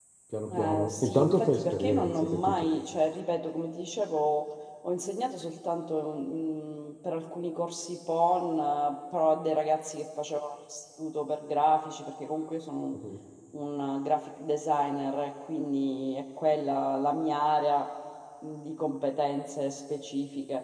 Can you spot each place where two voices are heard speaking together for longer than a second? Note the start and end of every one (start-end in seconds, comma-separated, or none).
0.6-2.6